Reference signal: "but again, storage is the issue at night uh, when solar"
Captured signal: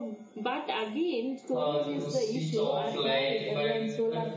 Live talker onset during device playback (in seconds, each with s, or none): 1.5 s